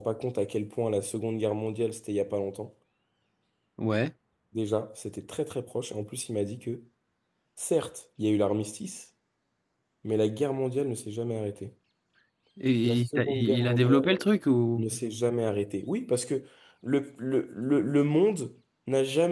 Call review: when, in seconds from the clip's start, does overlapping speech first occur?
12.8 s

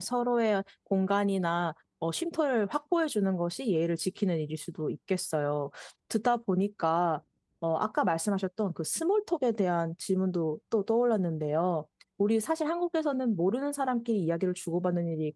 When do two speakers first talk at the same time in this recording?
none

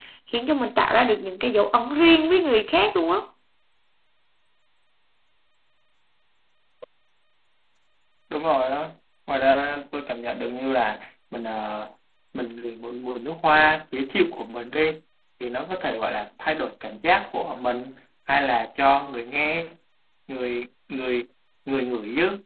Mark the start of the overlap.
none

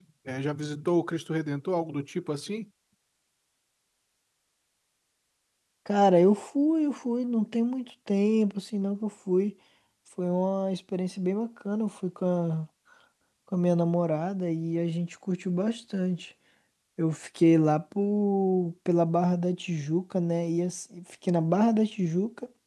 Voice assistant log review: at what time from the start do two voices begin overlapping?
none

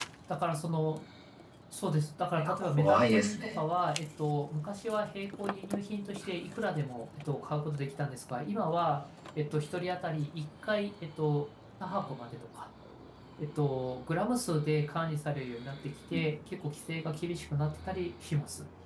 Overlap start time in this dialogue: 2.4 s

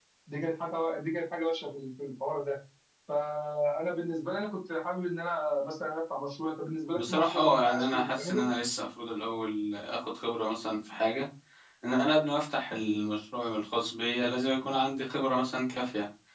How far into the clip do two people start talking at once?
7.0 s

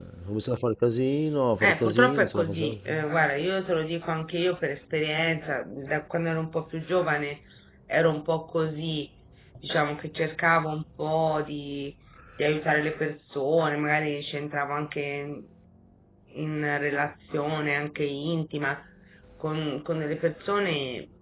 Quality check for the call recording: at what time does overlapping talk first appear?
1.6 s

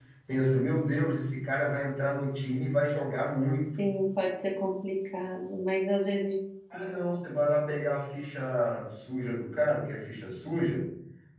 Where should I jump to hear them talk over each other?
none

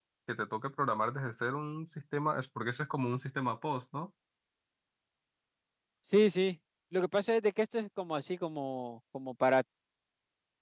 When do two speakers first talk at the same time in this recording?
none

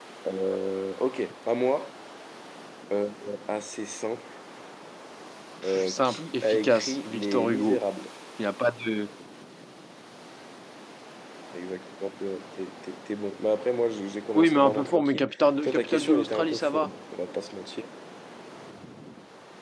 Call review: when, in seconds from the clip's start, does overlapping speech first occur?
5.6 s

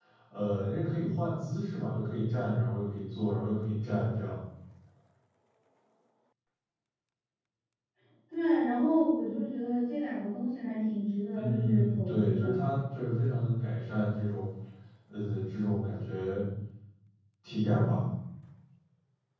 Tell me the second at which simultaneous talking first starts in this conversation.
11.3 s

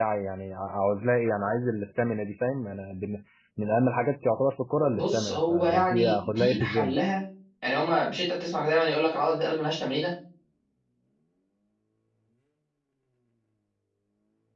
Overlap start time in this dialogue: 4.9 s

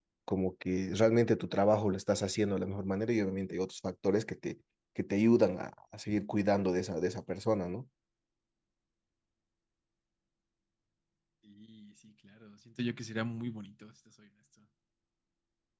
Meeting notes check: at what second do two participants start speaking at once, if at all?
none

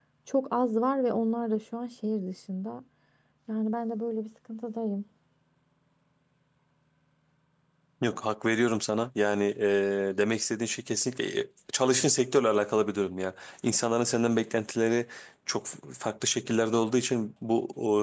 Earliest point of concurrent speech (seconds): none

